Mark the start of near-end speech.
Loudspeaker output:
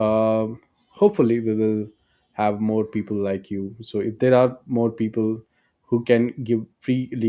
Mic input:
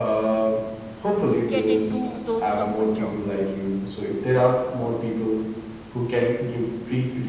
1.5 s

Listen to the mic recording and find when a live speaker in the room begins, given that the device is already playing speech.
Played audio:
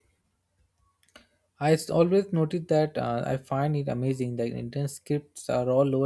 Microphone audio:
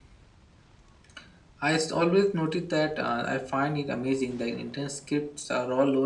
none

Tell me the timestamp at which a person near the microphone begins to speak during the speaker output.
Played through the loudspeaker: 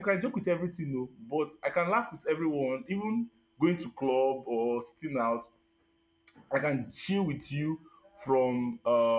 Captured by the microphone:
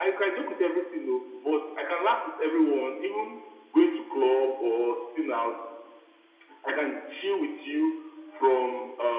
none

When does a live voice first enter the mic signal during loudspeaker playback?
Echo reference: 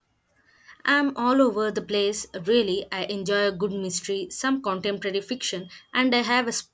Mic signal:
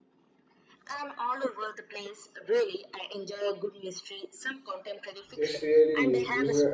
5.3 s

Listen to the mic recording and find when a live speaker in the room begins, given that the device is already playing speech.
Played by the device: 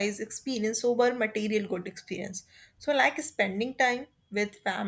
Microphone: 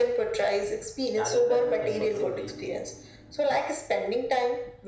1.1 s

